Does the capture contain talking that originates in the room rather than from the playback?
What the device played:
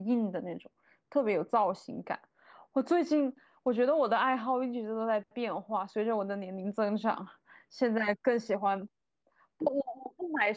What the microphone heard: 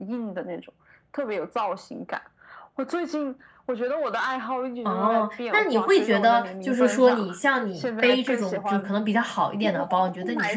Yes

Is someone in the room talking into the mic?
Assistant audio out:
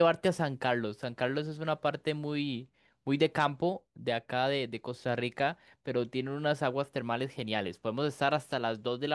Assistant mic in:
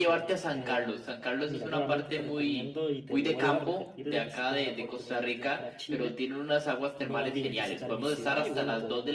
Yes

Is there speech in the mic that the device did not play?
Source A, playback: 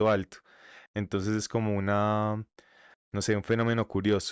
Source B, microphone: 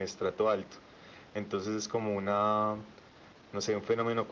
No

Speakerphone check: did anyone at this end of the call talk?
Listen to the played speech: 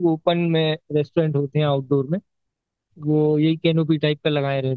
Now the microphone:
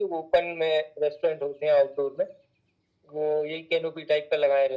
No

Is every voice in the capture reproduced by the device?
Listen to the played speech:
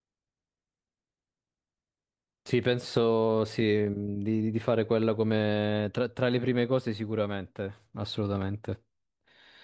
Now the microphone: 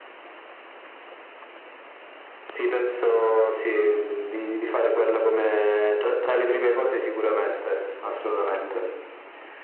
Yes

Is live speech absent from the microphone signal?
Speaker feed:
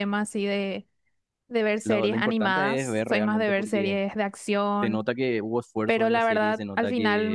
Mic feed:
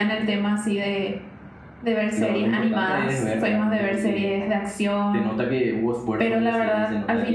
Yes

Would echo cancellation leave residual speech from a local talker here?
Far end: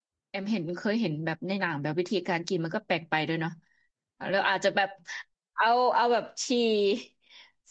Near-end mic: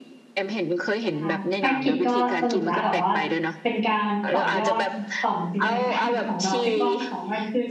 Yes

